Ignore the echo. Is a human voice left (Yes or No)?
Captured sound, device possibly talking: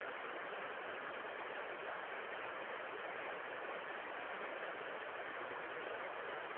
No